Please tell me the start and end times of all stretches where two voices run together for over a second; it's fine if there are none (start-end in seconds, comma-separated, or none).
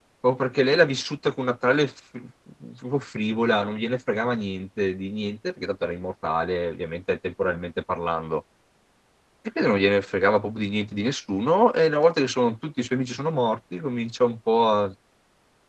none